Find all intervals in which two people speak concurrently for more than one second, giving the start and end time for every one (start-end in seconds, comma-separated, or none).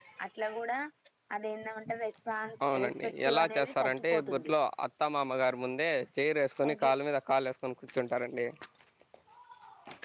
2.7-4.5